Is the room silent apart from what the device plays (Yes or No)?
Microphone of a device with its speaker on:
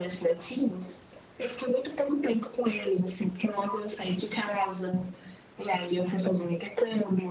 Yes